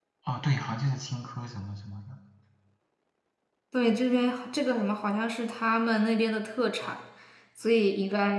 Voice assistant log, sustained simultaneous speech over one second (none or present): none